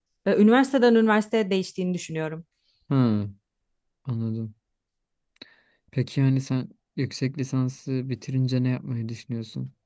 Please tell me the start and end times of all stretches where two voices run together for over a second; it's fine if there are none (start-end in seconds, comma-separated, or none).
none